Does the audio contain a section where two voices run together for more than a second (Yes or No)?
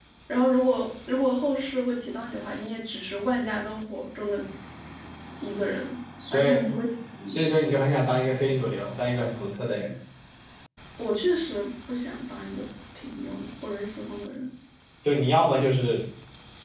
No